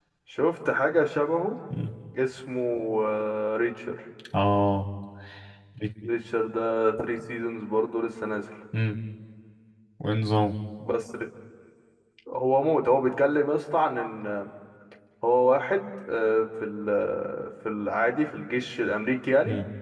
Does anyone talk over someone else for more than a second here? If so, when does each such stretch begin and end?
none

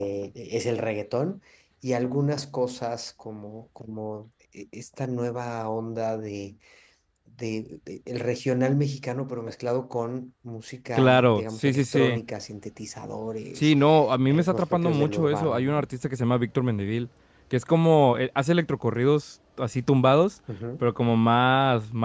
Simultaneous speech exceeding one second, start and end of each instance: 11.0-12.2, 14.2-15.8

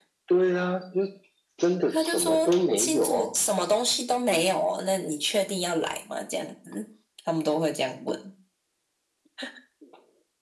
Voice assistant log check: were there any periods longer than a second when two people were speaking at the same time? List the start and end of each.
1.9-3.3

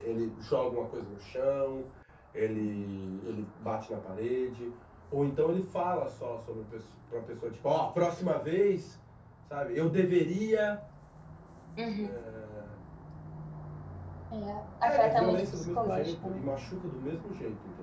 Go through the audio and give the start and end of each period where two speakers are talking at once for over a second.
14.8-16.4

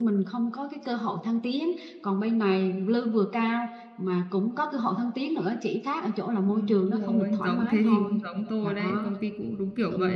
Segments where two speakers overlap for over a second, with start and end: 6.5-8.2

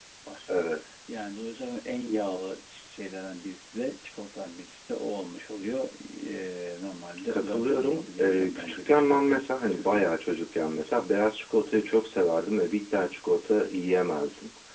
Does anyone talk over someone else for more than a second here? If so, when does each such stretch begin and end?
7.3-9.3

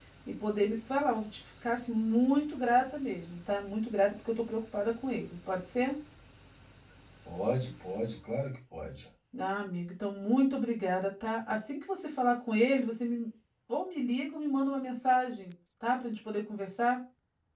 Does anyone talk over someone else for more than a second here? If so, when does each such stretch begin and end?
none

